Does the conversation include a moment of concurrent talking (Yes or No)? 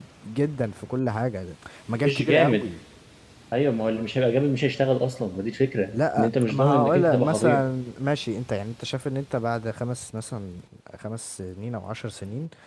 Yes